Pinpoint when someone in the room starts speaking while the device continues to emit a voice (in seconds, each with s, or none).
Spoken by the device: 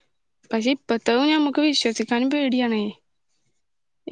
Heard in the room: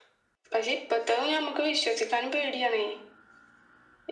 none